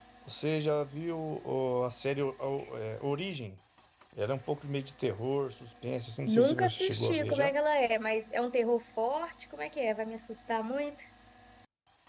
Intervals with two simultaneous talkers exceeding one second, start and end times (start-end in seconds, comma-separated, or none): 6.2-7.5